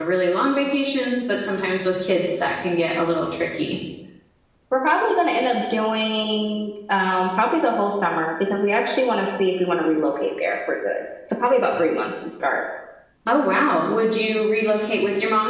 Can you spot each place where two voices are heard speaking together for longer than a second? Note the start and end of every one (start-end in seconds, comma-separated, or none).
none